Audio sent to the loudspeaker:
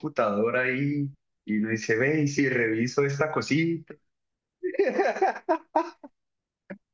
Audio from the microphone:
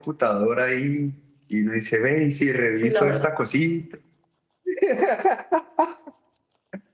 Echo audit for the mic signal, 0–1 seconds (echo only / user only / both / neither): echo only